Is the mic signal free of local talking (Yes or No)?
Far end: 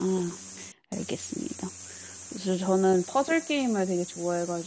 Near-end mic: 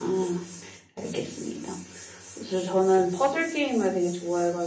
Yes